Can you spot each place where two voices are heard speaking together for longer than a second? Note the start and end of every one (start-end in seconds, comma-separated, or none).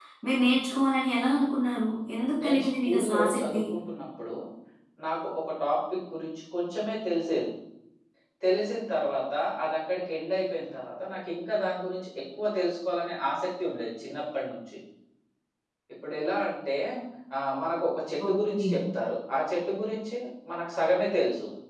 2.4-3.6